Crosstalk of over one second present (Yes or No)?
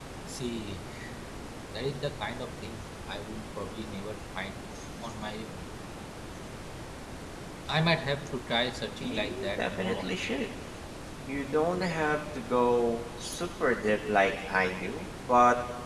Yes